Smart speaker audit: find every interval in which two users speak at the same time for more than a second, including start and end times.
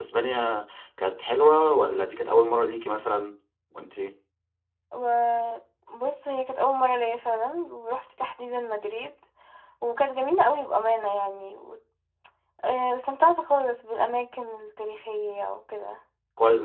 none

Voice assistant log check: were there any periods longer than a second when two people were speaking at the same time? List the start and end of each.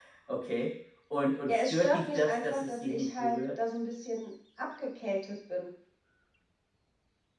1.4-3.6

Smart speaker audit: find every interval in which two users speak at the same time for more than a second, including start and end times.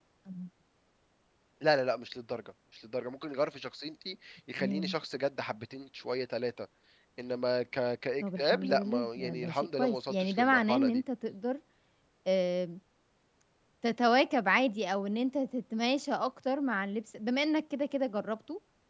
8.2-11.0

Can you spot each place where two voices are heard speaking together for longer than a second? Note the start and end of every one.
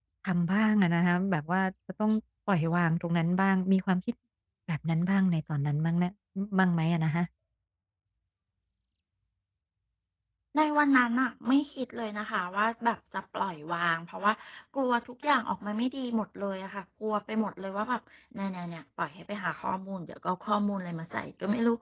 none

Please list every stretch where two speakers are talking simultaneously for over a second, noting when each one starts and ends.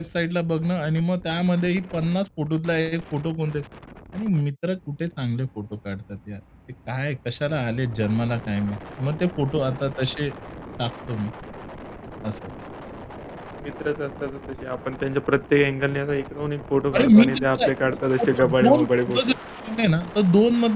16.9-19.3

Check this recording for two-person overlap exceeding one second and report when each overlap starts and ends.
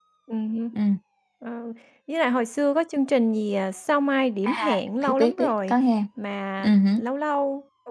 4.4-5.7

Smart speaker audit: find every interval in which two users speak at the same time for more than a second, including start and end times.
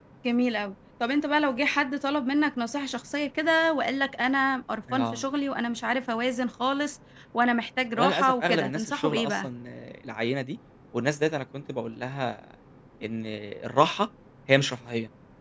8.0-9.5

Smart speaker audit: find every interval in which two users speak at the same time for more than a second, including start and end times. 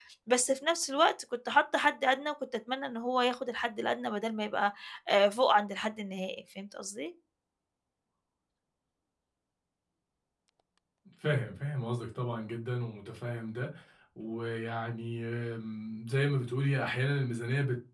none

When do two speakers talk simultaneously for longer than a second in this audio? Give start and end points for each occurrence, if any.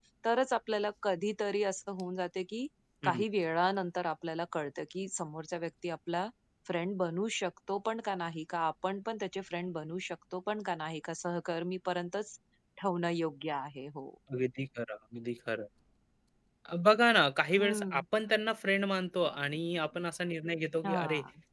none

